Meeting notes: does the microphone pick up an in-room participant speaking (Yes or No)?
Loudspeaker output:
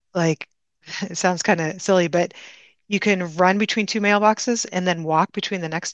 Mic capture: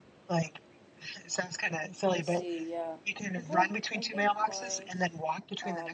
Yes